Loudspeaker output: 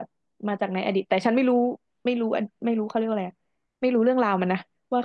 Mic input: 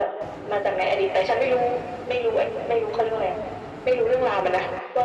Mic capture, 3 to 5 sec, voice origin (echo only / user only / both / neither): echo only